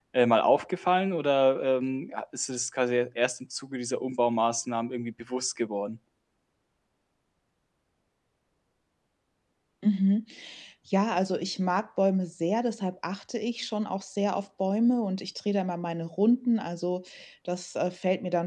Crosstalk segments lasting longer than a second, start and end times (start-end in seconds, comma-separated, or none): none